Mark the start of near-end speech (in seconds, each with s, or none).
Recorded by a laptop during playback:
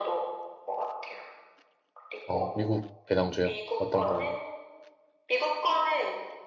2.2 s